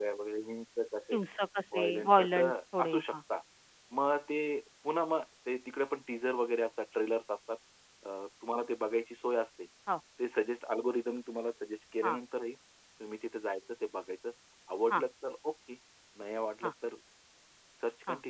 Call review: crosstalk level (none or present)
present